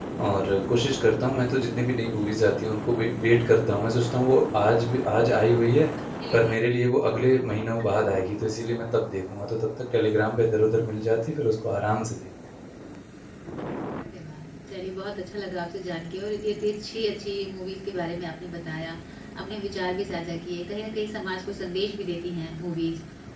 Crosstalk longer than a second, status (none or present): none